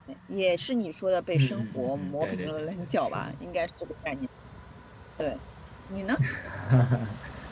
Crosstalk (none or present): present